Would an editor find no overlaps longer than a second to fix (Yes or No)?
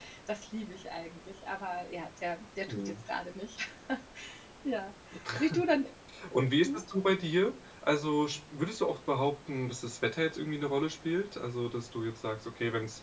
Yes